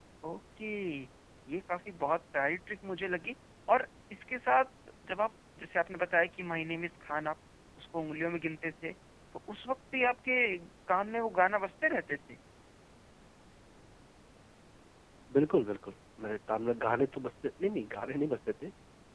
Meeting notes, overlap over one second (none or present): none